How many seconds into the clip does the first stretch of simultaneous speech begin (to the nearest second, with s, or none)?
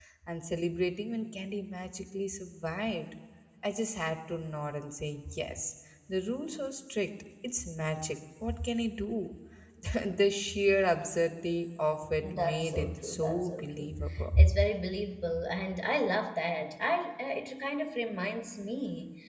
12 s